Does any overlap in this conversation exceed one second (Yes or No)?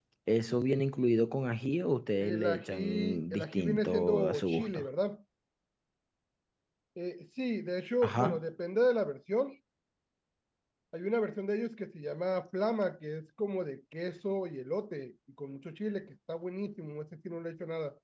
Yes